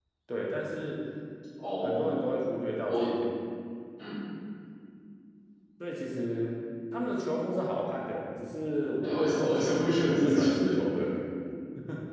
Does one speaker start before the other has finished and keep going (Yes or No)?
Yes